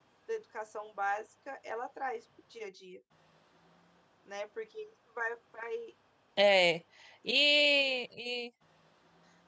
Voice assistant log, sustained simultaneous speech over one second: none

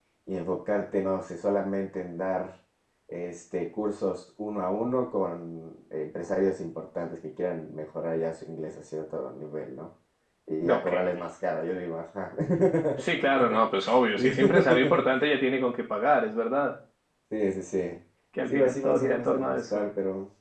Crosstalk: present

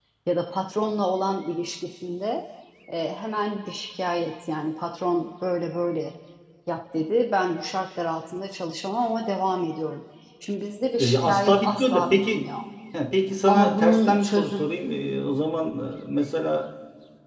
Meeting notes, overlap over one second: present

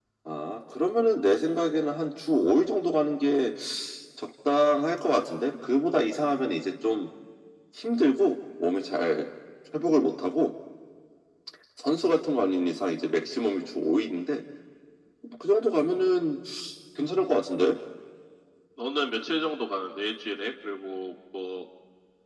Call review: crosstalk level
none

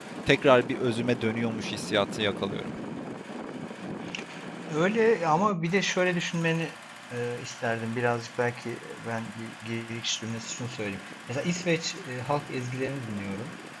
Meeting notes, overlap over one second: none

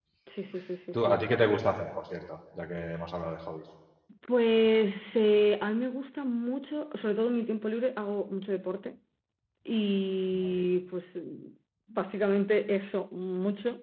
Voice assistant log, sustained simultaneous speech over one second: none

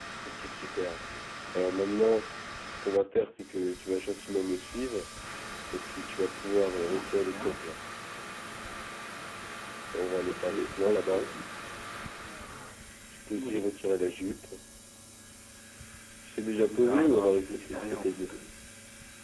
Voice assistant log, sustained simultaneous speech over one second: present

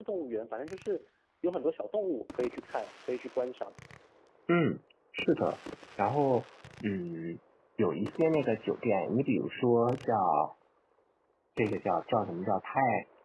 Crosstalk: none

